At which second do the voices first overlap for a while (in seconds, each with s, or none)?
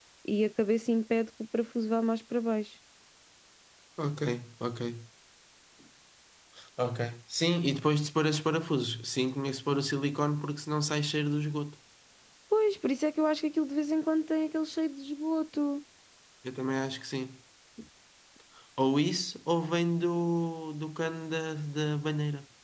none